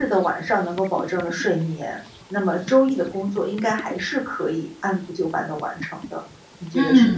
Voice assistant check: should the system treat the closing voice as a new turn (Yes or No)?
Yes